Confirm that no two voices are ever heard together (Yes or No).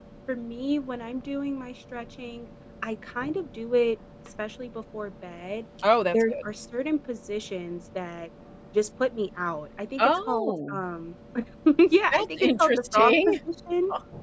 No